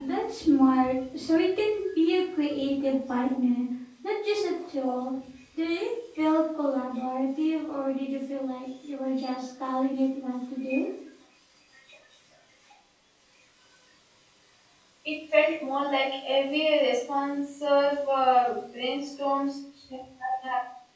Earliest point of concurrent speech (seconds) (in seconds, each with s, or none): none